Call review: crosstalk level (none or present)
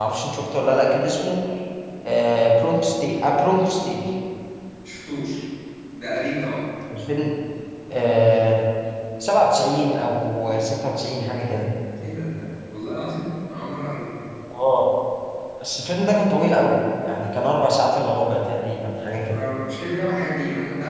none